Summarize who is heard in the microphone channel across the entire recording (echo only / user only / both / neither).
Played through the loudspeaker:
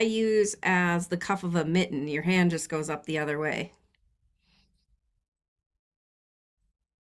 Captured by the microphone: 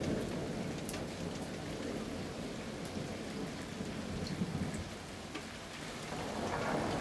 neither